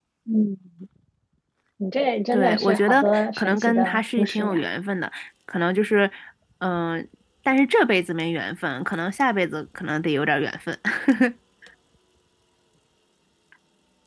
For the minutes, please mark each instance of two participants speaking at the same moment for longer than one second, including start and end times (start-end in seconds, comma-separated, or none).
2.3-4.7